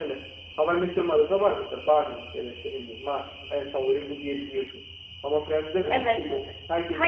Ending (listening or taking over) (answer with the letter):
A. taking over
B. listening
A